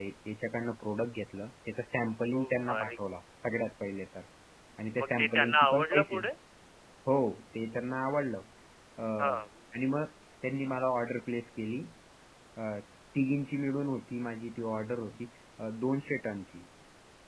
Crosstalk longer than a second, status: present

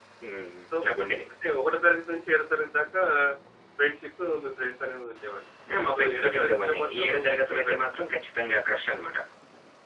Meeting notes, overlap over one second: present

